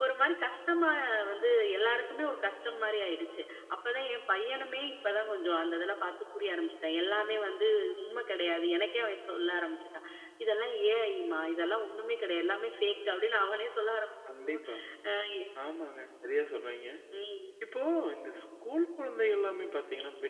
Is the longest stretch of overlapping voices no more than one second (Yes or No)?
Yes